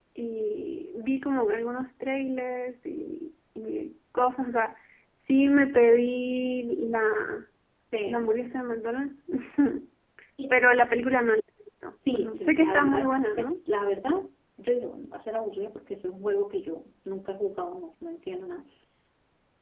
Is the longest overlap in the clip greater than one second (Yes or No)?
Yes